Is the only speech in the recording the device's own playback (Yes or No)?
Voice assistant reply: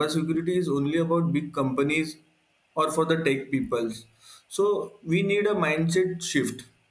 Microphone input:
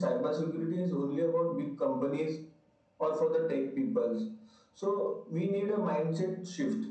Yes